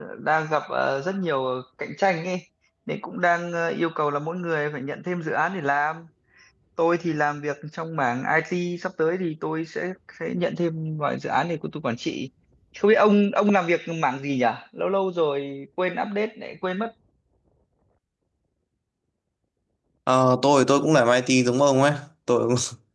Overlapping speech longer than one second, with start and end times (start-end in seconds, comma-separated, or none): none